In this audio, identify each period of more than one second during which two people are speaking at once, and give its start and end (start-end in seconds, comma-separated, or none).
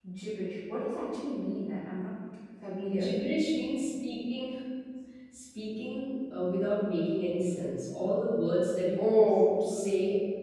none